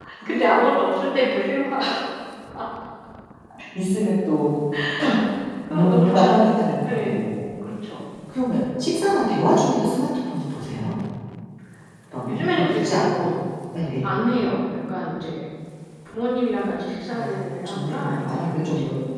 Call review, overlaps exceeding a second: present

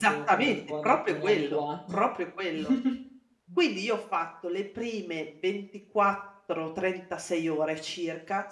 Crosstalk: present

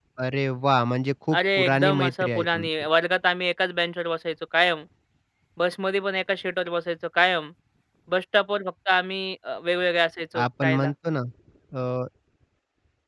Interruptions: present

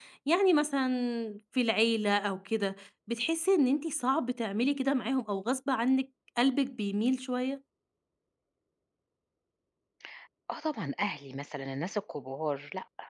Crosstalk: none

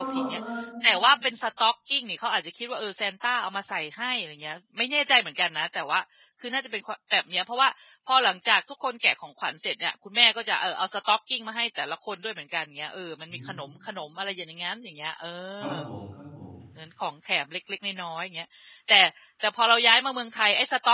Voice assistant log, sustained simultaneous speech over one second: none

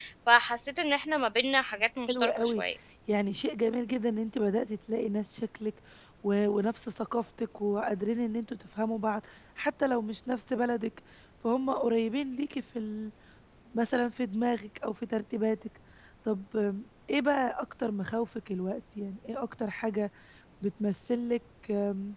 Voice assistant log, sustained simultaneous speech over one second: none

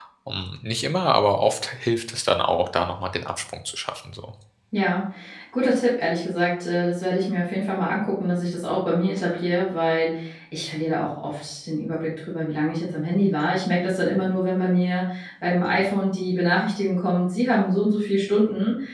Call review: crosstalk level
none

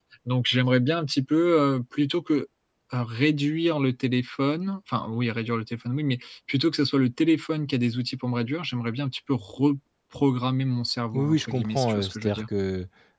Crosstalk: present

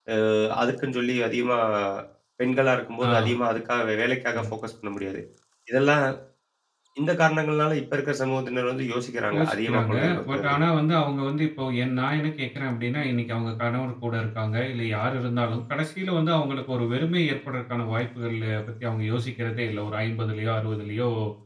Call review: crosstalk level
present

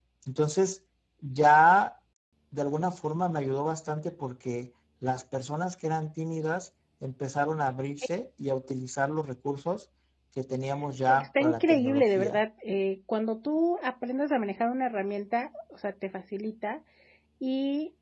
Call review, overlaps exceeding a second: present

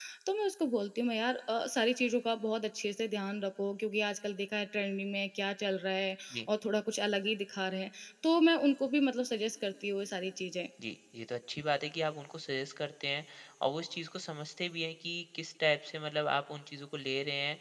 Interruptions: none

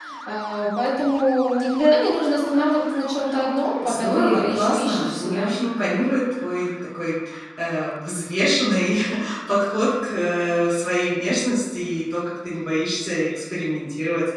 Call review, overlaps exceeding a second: present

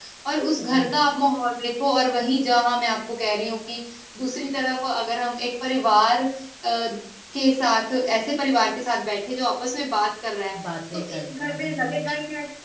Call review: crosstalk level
present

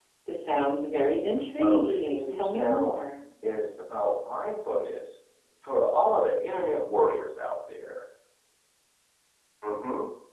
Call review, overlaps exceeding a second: present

